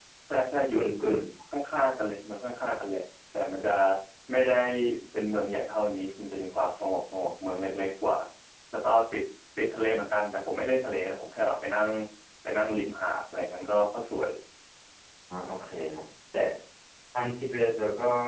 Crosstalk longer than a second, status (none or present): none